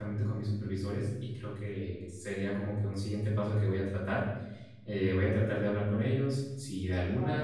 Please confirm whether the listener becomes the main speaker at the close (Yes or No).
No